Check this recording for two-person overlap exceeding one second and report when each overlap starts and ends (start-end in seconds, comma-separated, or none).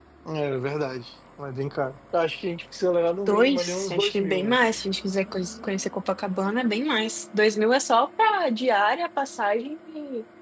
3.3-4.6